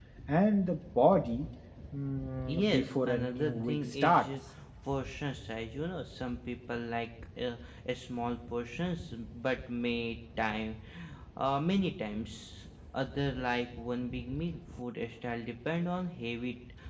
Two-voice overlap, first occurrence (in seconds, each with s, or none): 2.5 s